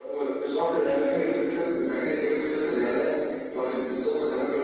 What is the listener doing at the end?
listening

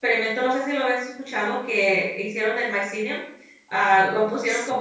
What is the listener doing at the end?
listening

